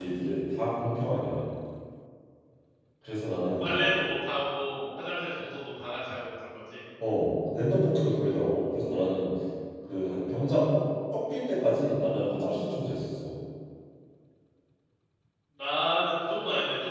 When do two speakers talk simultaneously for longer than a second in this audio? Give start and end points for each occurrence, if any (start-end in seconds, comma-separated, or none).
none